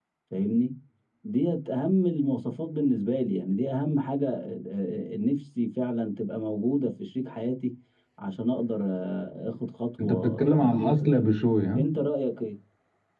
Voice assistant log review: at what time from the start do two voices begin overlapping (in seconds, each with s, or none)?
10.0 s